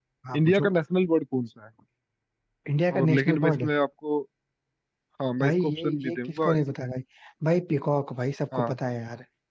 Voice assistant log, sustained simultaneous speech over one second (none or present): present